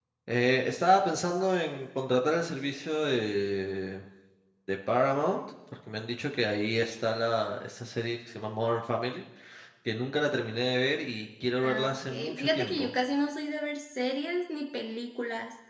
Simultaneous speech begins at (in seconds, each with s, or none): 11.6 s